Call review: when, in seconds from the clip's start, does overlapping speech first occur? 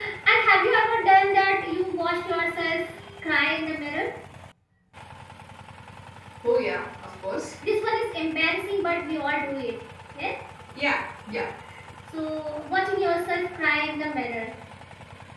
none

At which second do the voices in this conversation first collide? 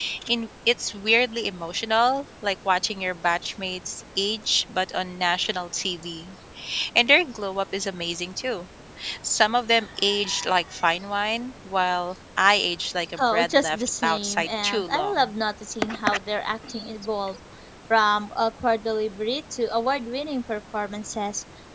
13.2 s

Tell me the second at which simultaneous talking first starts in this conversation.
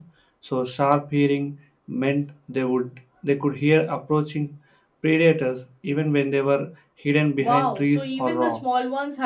7.4 s

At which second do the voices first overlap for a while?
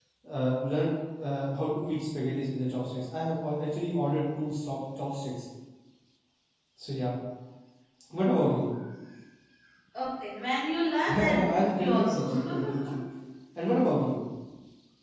11.1 s

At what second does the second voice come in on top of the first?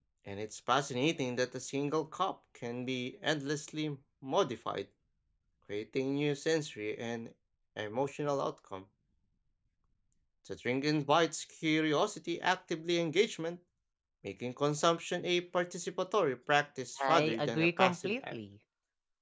17.0 s

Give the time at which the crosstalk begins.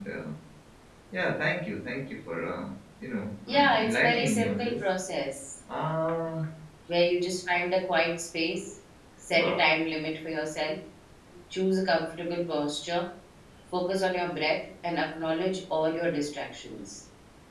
3.5 s

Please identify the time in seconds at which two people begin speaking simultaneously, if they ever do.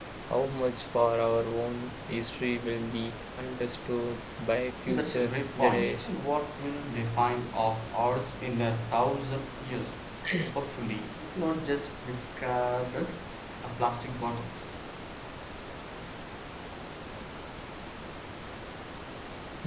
4.9 s

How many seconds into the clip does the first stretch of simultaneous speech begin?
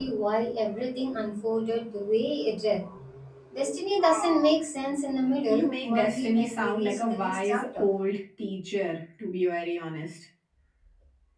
5.5 s

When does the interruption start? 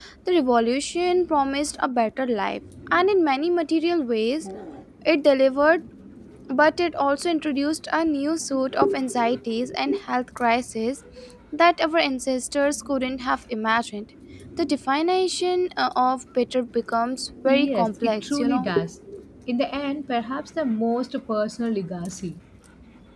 17.4 s

